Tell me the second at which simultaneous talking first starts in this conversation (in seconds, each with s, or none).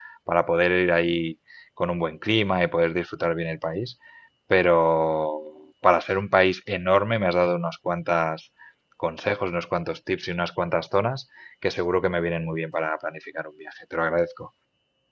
none